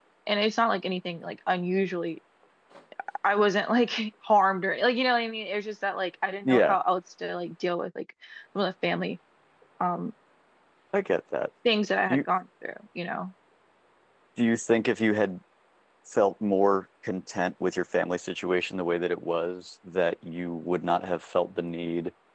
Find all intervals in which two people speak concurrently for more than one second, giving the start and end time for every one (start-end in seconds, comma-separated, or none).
none